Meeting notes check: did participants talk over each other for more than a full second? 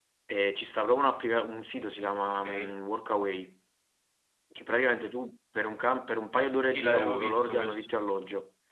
Yes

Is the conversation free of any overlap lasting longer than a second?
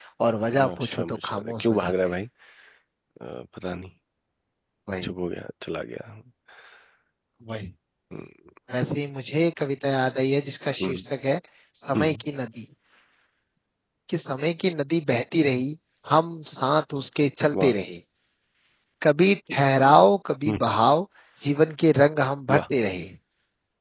No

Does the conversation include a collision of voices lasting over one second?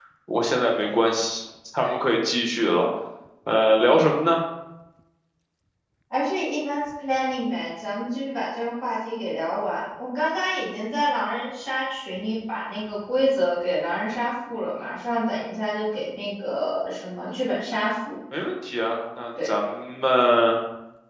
No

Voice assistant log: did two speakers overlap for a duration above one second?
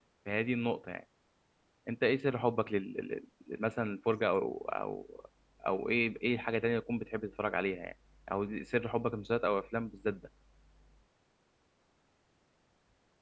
No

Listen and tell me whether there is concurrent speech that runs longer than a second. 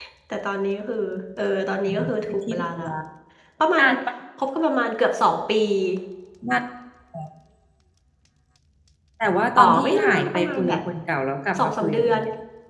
Yes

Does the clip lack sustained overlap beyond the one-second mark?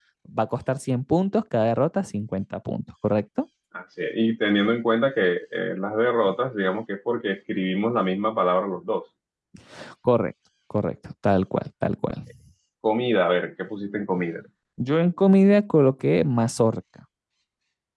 Yes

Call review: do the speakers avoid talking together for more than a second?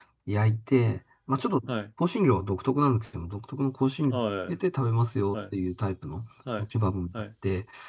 Yes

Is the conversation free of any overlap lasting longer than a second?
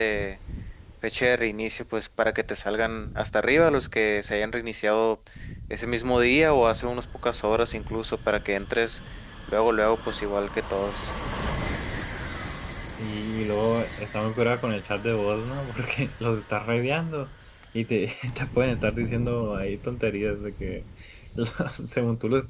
Yes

